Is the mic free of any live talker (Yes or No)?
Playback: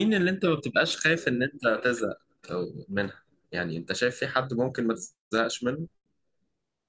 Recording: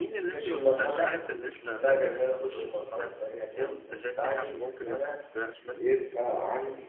No